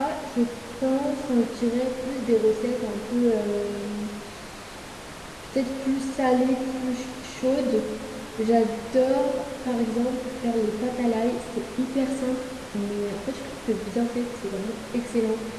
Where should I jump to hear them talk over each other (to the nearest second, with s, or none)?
none